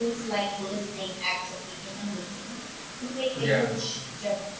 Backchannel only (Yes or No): Yes